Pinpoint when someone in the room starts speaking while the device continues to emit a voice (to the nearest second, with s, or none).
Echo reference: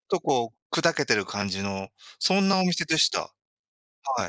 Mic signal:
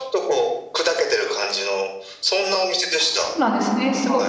3 s